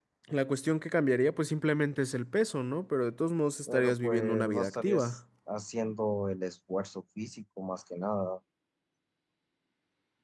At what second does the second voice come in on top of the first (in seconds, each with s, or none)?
3.7 s